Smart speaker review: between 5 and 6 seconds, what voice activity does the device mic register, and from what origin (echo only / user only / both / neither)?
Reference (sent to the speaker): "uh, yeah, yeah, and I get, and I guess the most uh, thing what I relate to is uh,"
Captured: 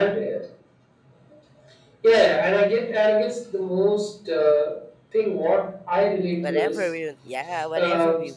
echo only